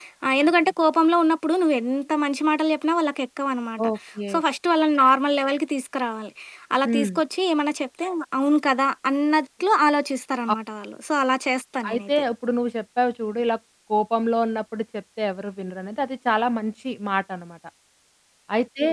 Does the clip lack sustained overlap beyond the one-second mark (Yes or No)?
Yes